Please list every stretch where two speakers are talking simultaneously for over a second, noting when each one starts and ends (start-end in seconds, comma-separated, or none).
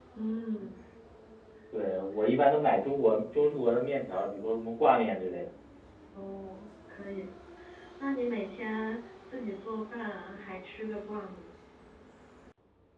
none